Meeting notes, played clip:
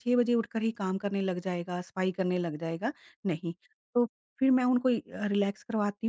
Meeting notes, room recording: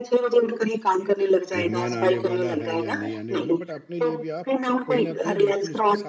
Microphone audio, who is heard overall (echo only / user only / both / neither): both